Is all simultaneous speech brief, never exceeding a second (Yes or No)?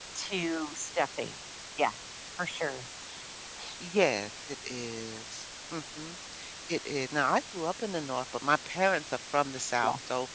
Yes